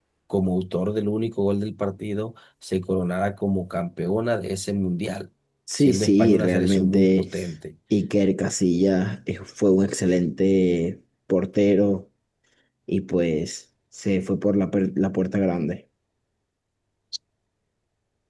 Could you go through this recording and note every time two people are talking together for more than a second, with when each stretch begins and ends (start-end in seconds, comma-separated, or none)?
5.8-7.3